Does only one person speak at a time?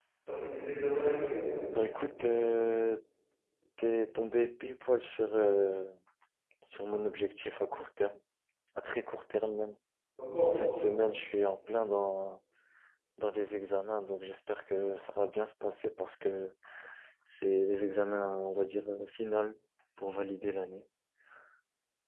Yes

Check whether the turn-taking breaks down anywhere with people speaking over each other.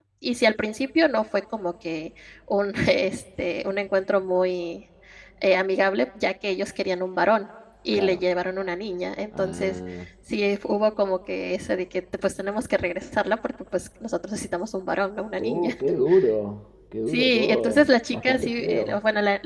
Yes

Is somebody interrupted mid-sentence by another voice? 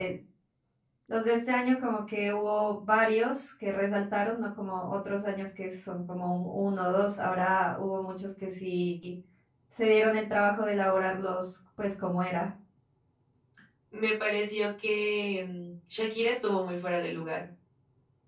No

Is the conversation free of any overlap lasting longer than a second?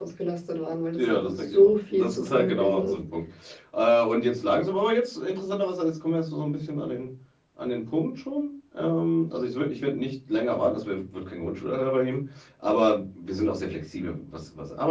No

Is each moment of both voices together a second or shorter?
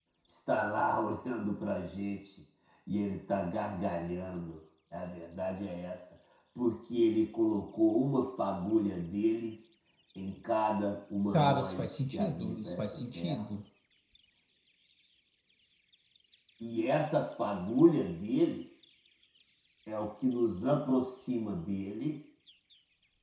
No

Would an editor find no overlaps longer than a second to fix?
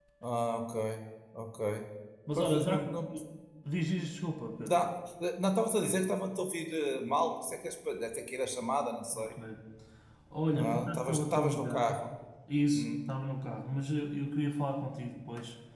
No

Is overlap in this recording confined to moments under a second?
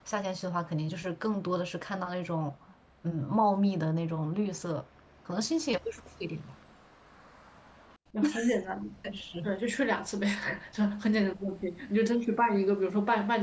Yes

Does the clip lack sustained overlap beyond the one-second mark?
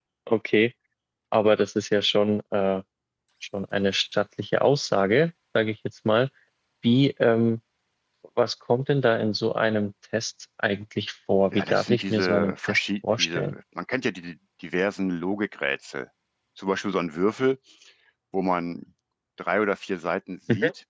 No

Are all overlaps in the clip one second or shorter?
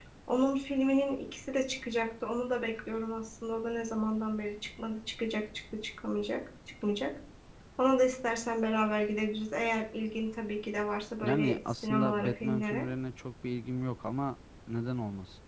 No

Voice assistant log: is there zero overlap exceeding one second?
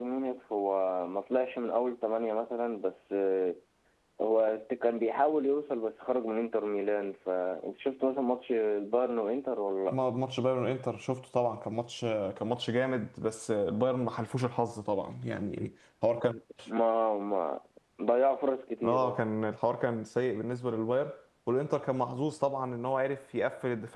Yes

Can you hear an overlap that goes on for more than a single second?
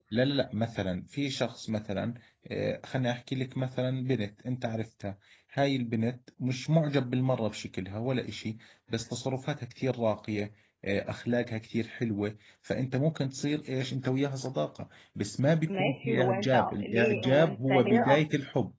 Yes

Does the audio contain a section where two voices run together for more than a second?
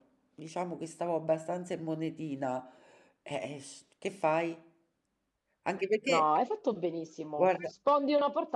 No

